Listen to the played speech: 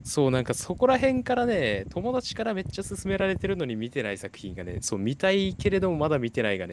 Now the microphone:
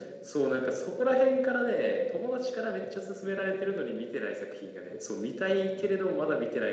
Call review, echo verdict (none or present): present